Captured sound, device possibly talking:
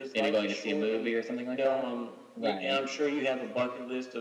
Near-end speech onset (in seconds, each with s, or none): 2.3 s